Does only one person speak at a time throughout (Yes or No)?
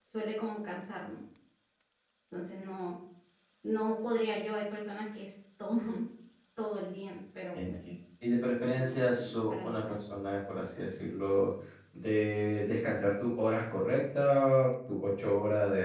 No